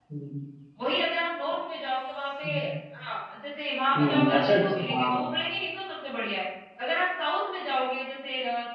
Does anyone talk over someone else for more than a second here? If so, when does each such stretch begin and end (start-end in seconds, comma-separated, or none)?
4.0-5.2